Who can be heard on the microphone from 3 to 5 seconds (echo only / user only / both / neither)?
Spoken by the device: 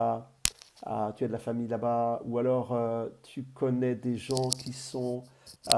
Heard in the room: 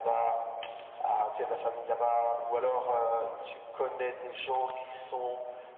echo only